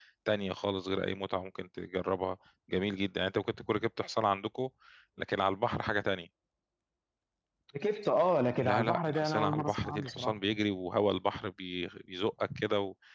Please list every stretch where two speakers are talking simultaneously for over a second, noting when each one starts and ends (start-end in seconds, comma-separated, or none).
8.6-10.4